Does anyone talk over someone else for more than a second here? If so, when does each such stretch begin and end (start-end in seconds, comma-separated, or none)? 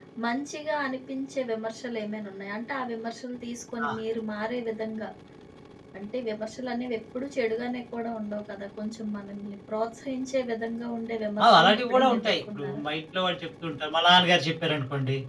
11.6-12.8